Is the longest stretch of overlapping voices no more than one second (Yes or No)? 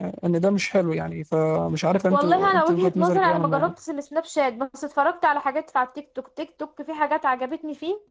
No